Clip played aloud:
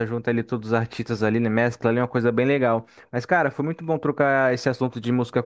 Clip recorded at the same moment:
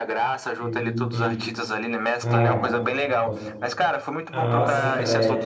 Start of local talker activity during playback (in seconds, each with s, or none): 0.6 s